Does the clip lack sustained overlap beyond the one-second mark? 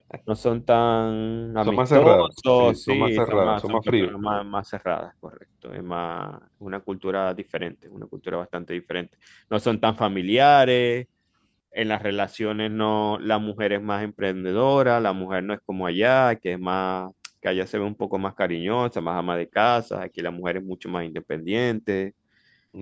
No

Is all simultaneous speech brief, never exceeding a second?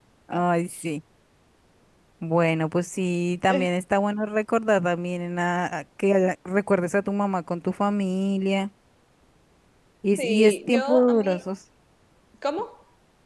No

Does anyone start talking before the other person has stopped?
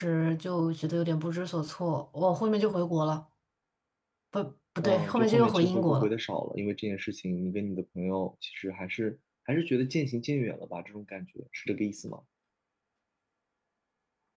Yes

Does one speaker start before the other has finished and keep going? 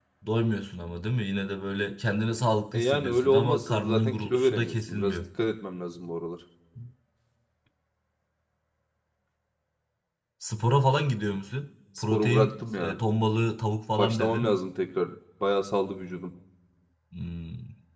Yes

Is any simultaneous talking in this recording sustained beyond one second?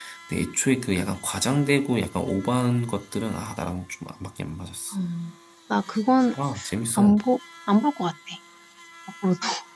No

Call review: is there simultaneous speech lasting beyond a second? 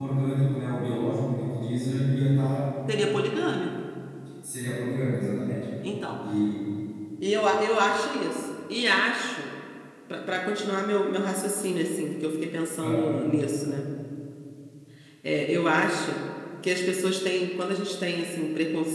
No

